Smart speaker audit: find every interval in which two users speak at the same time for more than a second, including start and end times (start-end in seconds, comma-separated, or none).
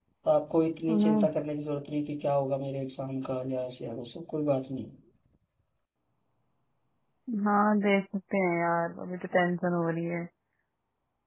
none